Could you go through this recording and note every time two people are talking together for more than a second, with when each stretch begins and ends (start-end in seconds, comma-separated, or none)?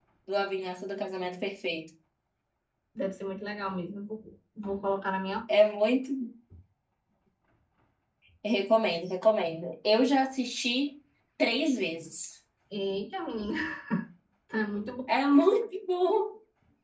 none